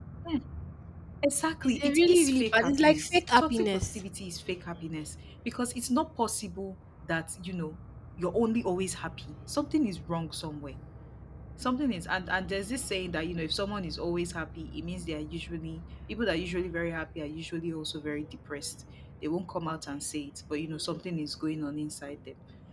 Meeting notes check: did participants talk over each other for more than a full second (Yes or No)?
Yes